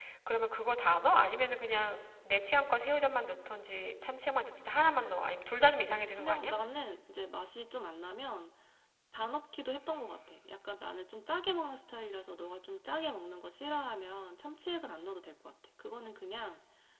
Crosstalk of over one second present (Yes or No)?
No